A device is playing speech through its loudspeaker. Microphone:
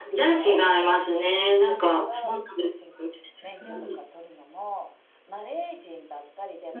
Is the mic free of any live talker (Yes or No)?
No